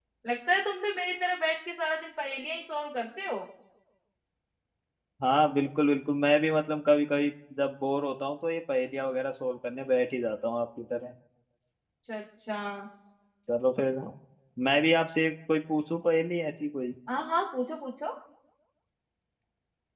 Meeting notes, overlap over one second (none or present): none